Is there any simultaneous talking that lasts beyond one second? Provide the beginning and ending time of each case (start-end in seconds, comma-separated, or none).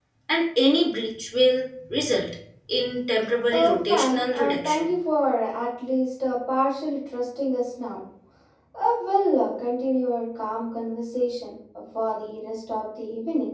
3.5-4.9